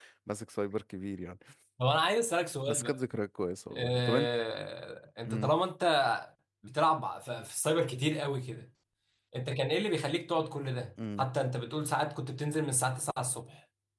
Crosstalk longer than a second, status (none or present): none